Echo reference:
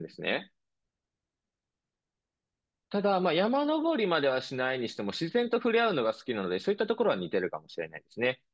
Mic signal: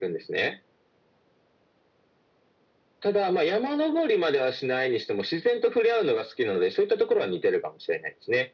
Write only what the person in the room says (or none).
none